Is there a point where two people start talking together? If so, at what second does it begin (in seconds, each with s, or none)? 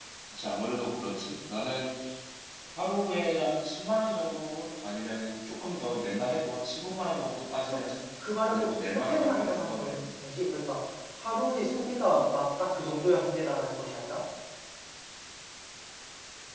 8.5 s